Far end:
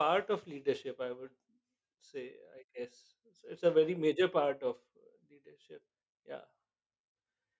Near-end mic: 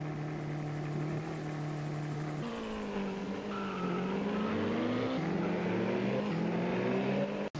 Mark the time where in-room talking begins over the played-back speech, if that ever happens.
none

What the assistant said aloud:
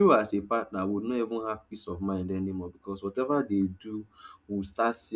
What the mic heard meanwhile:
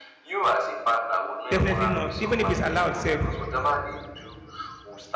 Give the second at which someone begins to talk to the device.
1.5 s

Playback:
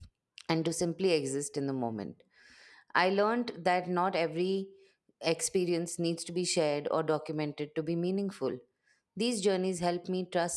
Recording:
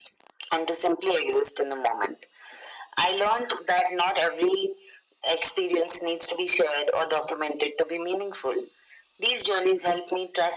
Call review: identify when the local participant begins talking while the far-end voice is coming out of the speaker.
none

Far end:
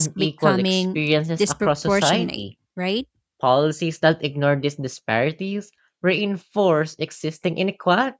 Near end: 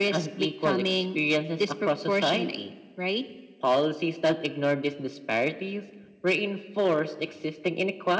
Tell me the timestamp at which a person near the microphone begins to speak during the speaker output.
none

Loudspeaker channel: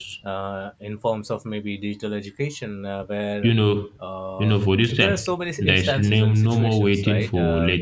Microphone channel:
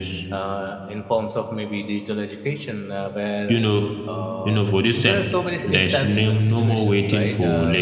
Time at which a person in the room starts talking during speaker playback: none

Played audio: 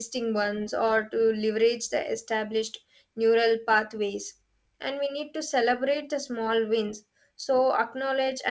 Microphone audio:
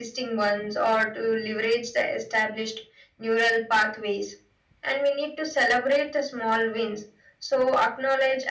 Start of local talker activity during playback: none

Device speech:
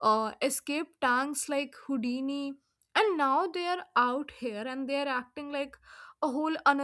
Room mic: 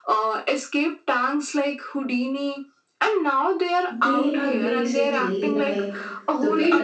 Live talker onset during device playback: 3.9 s

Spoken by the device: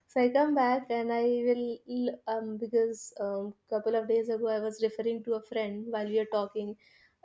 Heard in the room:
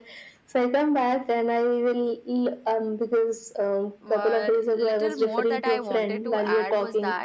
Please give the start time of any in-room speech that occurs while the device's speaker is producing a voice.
4.0 s

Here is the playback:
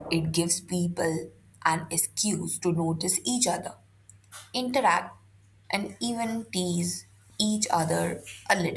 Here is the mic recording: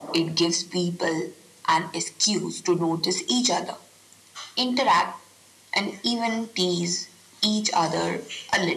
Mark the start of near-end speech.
none

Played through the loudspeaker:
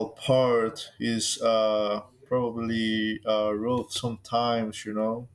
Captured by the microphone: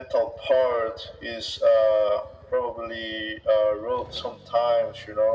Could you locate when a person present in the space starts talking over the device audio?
none

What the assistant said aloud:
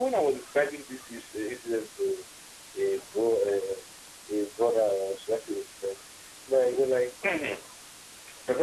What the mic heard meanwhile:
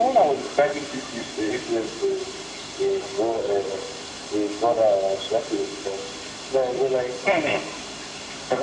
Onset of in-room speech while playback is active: none

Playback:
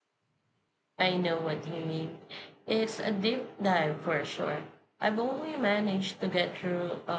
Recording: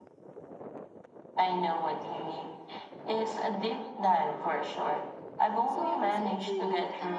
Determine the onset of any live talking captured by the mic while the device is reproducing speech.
5.6 s

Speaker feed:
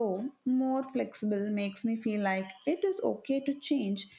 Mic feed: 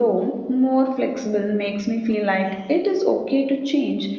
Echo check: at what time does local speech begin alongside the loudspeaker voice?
none

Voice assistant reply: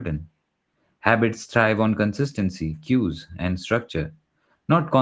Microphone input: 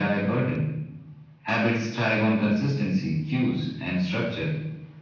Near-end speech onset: none

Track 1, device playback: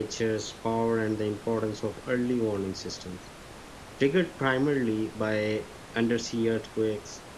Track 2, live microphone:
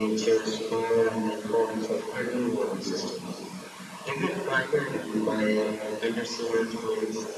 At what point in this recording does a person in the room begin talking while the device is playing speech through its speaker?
none

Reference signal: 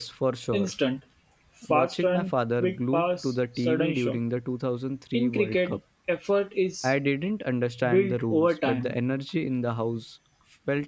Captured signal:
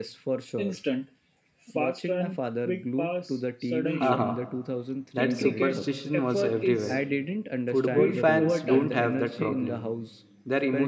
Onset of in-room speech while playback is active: 4.0 s

